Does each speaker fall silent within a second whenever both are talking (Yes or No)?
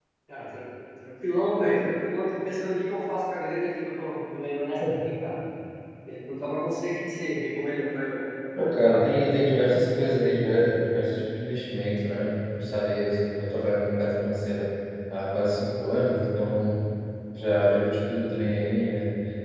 Yes